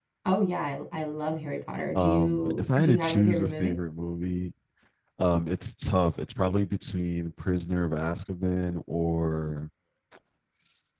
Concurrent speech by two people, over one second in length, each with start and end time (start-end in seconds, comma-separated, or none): 2.0-3.8